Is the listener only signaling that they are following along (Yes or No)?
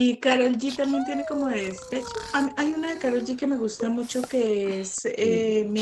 Yes